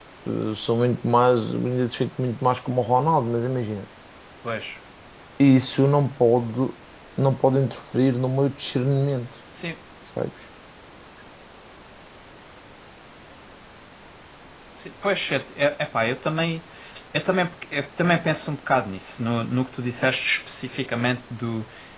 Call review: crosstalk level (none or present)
none